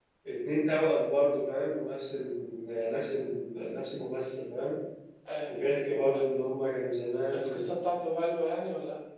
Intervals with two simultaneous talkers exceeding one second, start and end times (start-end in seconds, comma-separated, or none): none